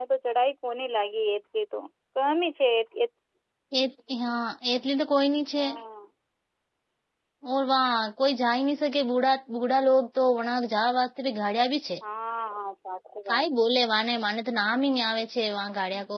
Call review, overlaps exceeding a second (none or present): none